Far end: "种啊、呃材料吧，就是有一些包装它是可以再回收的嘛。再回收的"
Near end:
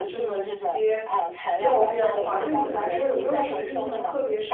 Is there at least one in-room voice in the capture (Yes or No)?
Yes